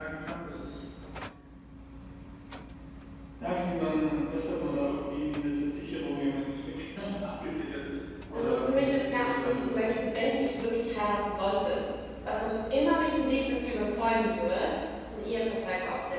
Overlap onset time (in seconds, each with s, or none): 8.3 s